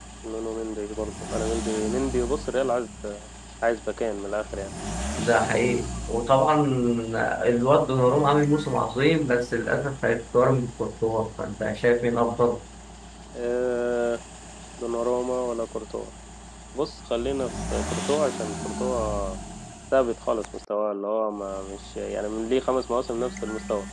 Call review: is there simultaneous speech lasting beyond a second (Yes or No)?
No